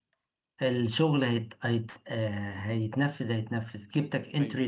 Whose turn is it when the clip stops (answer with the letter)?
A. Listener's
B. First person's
B